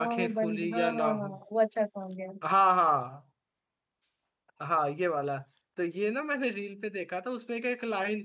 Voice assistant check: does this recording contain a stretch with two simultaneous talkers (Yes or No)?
Yes